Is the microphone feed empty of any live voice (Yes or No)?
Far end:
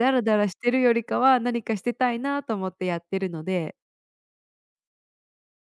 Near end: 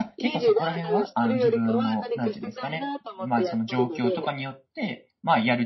No